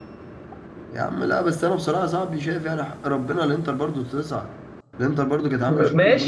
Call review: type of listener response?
taking over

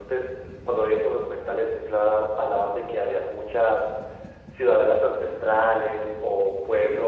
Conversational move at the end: listening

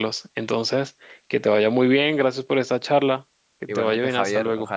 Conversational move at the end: taking over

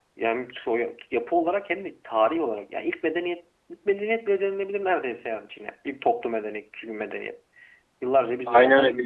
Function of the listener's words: taking over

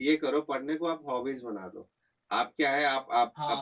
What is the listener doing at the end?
listening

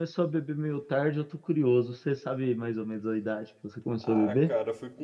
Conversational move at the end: taking over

